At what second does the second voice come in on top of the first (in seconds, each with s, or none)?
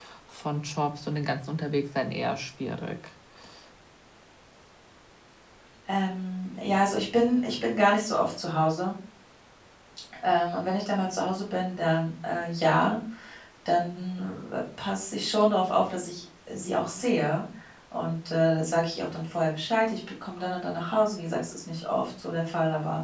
none